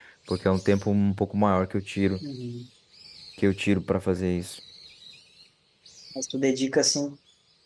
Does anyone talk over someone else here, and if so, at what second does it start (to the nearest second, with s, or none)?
none